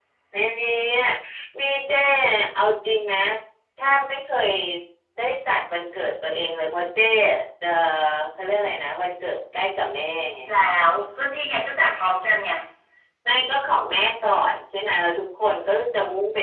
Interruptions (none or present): none